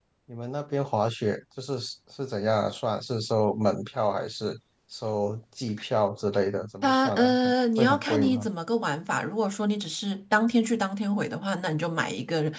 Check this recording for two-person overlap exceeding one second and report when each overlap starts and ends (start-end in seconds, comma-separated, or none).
6.8-8.5